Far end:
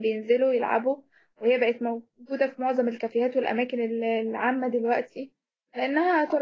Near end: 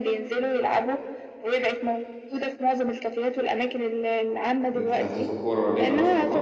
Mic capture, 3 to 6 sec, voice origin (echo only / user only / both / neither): both